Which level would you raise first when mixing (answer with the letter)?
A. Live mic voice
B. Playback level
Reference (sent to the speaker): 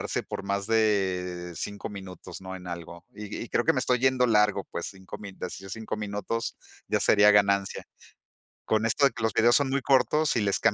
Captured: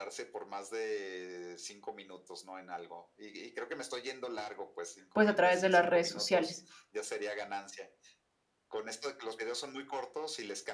B